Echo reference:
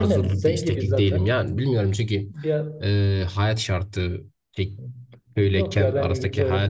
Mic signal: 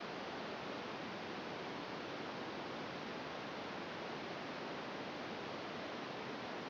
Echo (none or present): none